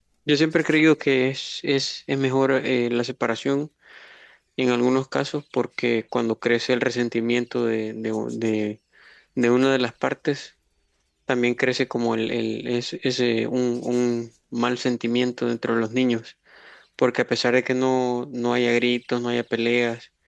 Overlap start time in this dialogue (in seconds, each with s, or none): none